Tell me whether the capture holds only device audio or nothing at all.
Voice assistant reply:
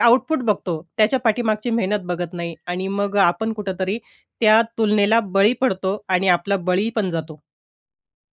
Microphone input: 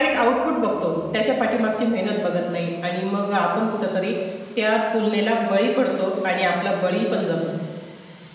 Yes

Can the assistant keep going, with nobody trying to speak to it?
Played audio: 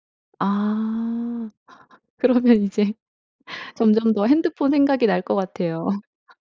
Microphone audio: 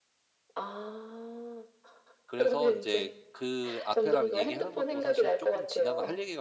No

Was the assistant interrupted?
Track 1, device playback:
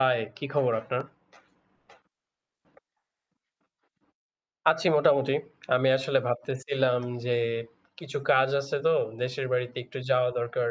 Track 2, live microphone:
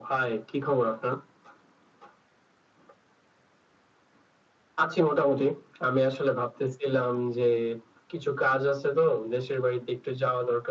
No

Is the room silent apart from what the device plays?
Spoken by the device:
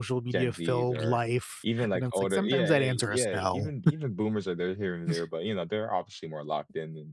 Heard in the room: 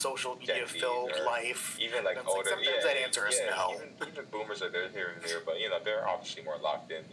Yes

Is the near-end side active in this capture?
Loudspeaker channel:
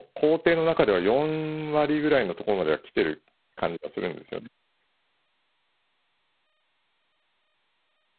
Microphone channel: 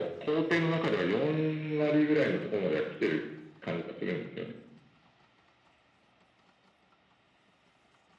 No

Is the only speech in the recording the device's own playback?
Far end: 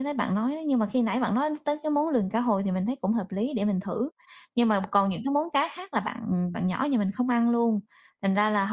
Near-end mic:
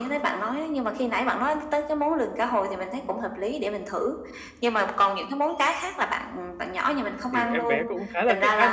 No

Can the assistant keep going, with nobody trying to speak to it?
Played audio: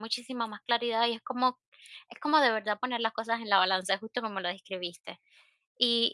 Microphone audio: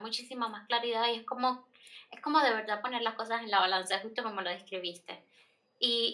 Yes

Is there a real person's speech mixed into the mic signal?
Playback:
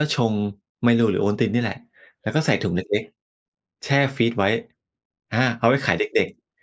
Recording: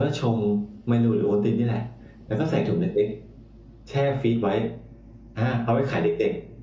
No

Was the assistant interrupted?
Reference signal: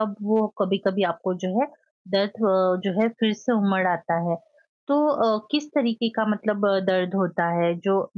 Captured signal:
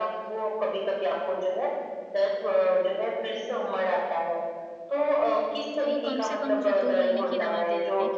Yes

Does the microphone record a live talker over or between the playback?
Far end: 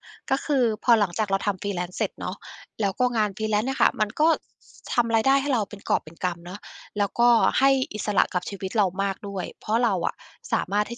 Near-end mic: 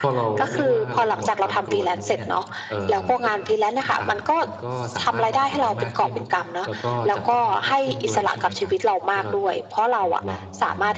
Yes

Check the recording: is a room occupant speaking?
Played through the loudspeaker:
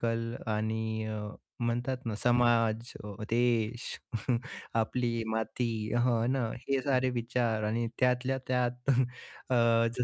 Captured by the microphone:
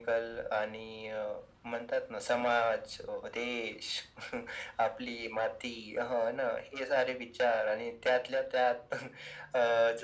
No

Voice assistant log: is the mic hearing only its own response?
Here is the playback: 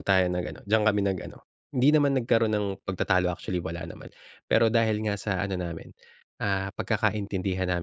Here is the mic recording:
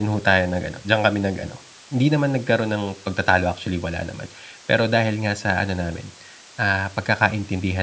Yes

